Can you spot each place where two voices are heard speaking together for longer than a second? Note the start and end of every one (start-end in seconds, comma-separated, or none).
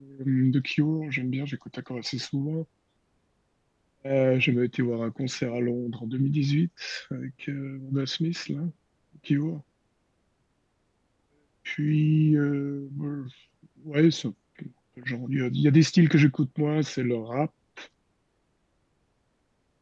none